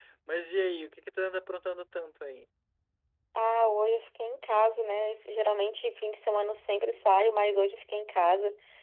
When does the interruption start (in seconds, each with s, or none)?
none